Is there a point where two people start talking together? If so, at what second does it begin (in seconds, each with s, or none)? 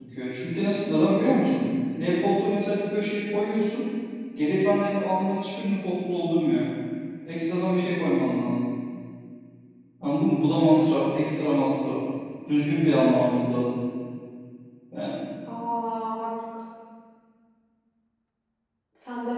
none